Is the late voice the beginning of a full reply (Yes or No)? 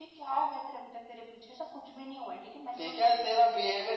Yes